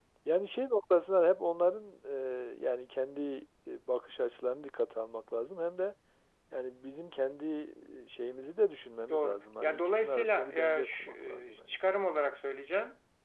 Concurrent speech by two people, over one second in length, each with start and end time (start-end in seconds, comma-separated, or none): 9.1-11.7